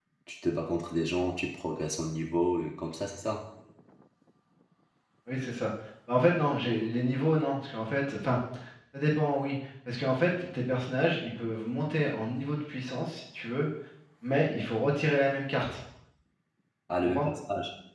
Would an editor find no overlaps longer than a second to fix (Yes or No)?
Yes